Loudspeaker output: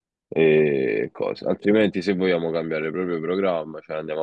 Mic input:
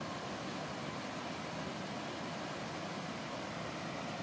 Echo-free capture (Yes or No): Yes